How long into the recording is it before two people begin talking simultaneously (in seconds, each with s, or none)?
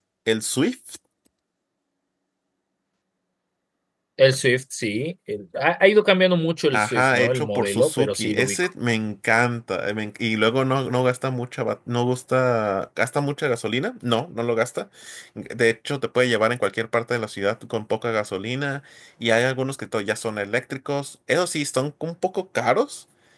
6.7 s